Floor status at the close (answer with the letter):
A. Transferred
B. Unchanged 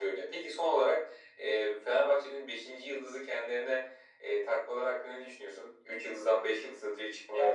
A